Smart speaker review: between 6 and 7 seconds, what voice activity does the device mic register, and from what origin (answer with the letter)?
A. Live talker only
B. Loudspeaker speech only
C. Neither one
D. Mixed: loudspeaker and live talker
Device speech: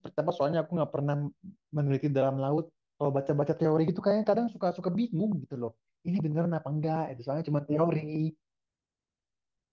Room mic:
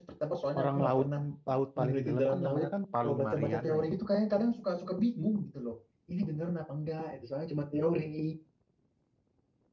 B